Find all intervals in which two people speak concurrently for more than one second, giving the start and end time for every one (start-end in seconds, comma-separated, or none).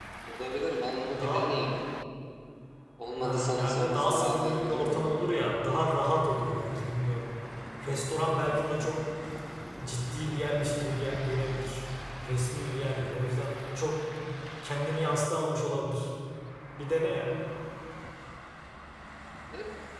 3.2-5.0